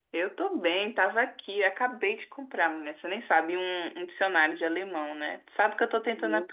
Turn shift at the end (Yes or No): No